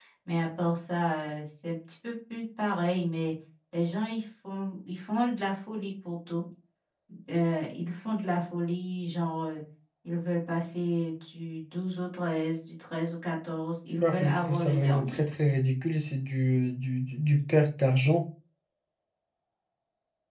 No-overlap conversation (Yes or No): No